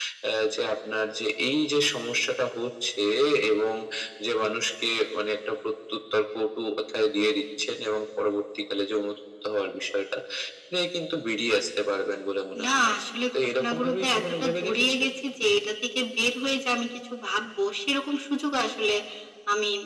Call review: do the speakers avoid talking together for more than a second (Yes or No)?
No